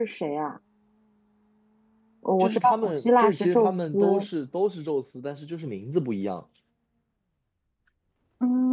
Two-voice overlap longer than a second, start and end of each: 2.4-4.3

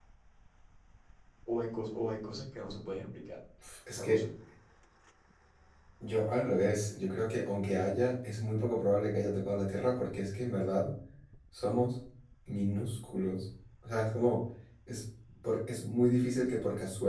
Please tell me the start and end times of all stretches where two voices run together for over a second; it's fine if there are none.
none

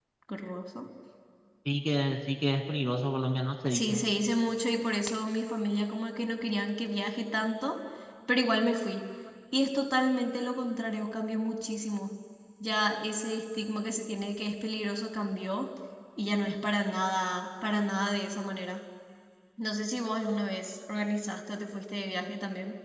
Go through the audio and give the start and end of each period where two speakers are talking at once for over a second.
none

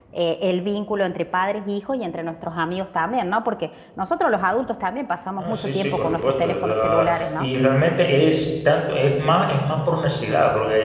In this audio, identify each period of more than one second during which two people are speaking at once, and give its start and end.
5.4-7.5

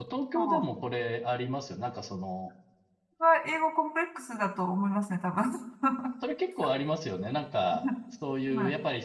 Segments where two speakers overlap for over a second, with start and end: none

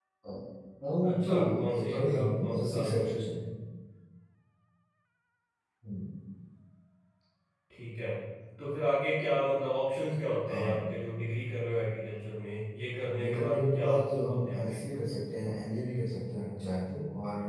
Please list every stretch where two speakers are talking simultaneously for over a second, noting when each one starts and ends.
1.1-3.1, 13.2-14.8

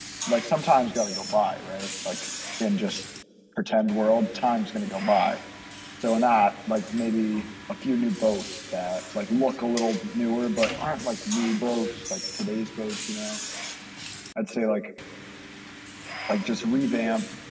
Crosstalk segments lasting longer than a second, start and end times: none

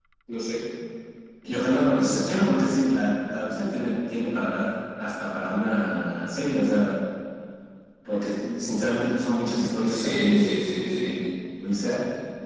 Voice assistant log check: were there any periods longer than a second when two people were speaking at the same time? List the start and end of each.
9.8-11.2

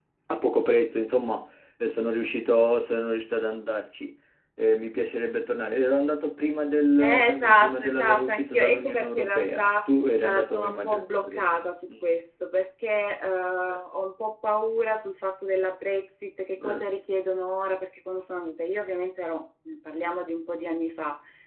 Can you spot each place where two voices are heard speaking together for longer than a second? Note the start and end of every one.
7.0-9.7, 10.2-12.1

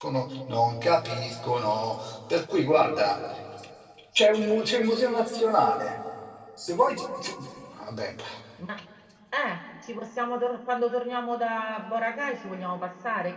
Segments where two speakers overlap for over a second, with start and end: none

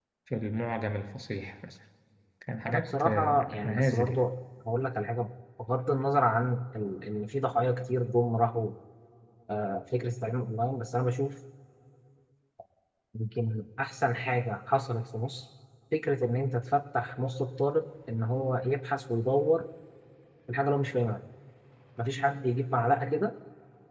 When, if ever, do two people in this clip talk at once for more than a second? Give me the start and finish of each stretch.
2.7-4.2

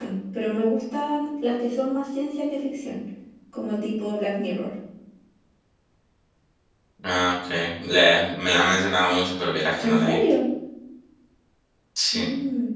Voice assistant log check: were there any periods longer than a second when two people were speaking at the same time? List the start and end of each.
none

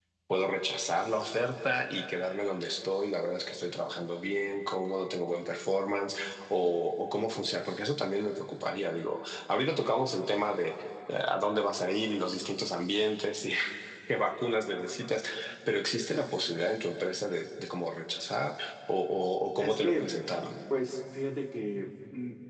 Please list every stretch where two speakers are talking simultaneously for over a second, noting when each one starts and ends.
none

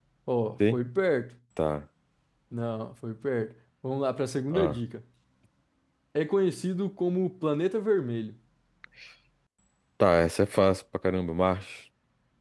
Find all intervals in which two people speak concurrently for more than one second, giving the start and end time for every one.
none

